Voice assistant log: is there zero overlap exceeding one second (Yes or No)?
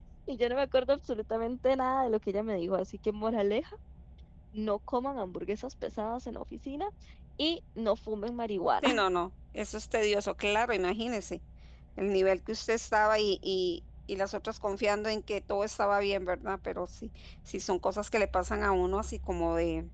Yes